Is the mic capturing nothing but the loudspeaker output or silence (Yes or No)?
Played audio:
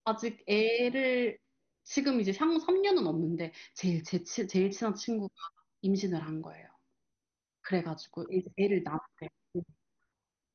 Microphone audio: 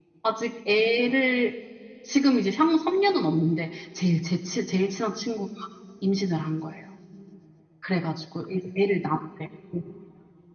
Yes